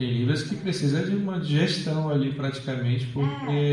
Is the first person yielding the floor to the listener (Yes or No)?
No